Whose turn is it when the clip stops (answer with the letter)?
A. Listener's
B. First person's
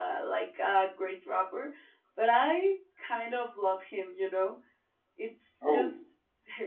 B